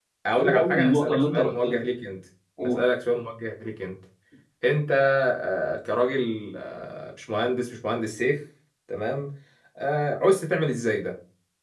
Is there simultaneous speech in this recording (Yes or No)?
Yes